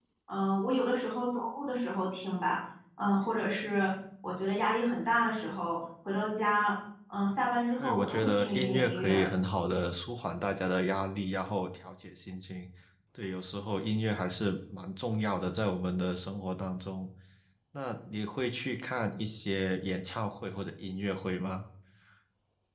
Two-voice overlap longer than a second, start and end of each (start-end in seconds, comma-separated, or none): 7.8-9.2